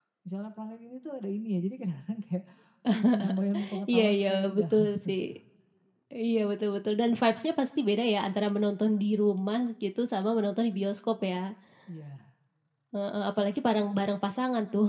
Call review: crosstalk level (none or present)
present